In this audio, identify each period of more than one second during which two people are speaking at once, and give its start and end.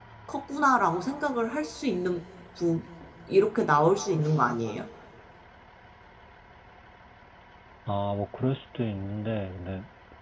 none

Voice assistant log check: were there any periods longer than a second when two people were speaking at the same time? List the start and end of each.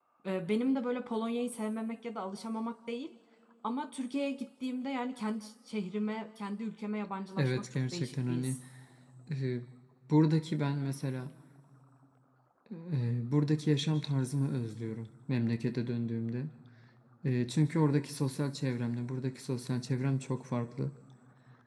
7.4-8.6

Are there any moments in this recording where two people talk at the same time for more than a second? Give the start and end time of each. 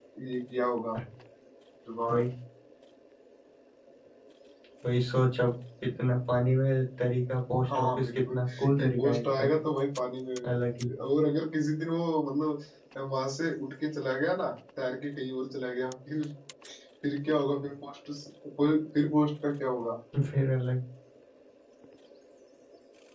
7.7-9.5

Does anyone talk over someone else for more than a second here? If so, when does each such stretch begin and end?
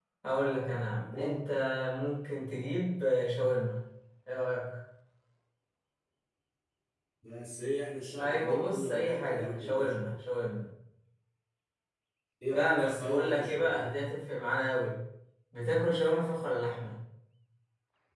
8.2-10.1, 12.5-13.9

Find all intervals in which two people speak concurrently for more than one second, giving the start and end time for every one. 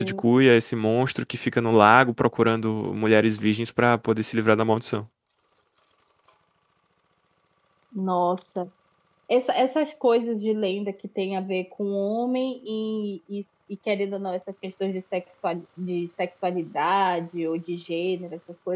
none

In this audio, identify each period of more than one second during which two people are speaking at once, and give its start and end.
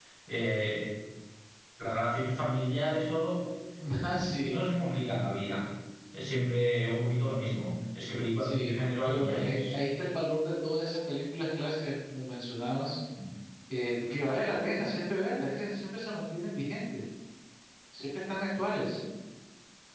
8.4-9.7

